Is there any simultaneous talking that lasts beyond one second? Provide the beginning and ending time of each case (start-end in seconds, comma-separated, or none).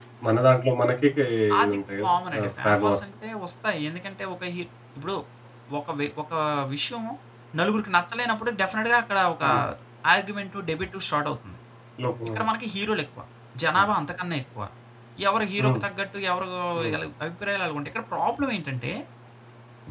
1.6-3.0